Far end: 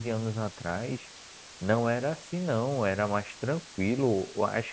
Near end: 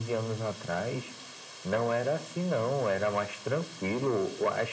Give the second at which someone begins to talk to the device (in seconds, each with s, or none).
none